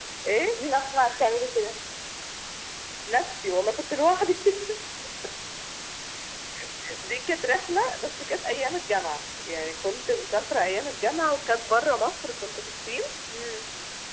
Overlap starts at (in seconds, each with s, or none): none